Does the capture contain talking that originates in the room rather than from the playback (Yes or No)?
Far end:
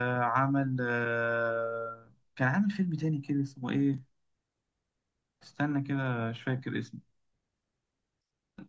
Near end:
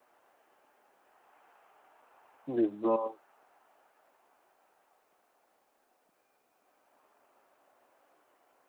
Yes